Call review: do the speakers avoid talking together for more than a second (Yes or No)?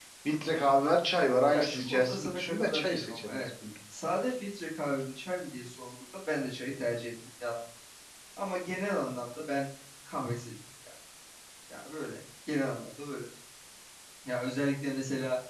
No